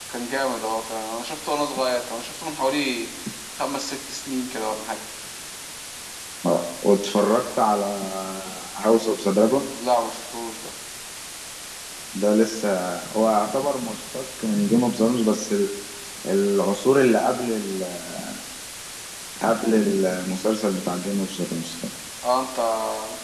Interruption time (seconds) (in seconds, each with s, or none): none